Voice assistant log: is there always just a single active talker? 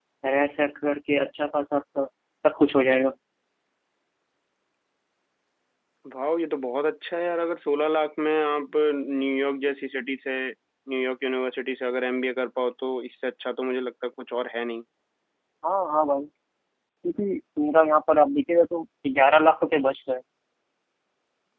Yes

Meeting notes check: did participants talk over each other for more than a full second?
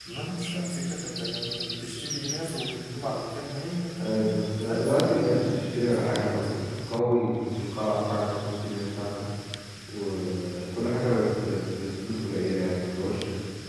Yes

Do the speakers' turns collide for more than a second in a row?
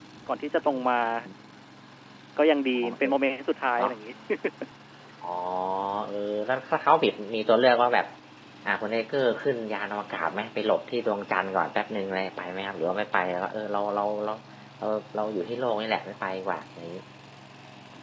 No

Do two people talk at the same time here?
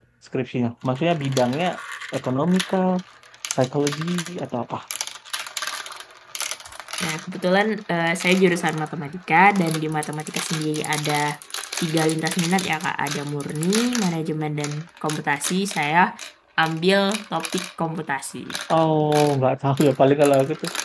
No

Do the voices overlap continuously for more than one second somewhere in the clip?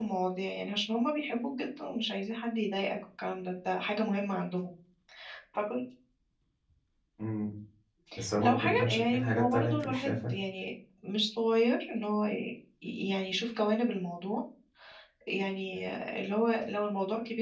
Yes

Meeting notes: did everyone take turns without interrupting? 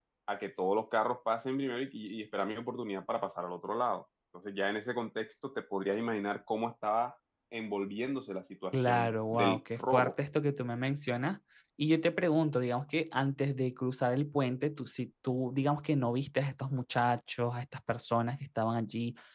No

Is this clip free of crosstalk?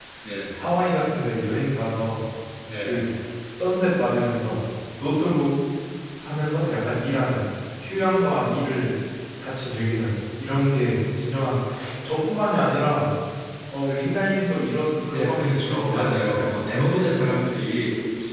No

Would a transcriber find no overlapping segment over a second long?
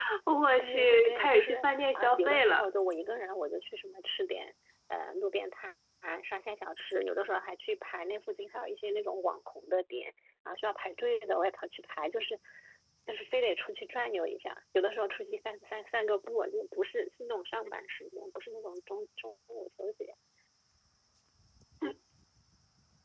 No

